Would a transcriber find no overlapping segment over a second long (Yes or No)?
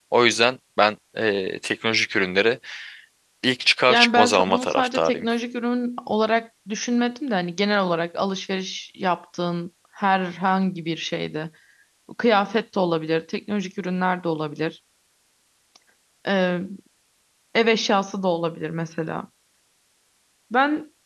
No